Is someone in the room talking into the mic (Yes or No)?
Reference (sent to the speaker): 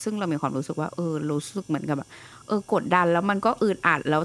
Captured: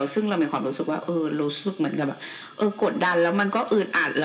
No